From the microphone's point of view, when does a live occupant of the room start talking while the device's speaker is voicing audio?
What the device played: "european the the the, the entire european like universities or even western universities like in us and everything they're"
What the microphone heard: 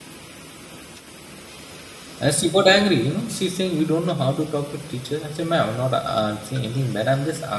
2.2 s

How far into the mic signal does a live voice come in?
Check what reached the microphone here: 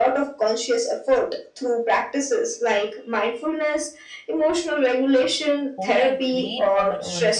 5.8 s

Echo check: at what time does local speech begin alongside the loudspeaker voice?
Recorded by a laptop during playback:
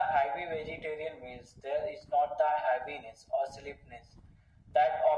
none

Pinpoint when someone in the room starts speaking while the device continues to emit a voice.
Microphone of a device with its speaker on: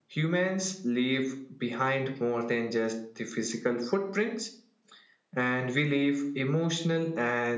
none

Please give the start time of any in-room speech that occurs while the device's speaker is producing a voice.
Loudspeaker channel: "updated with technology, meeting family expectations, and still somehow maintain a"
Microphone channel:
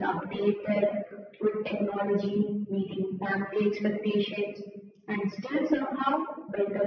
none

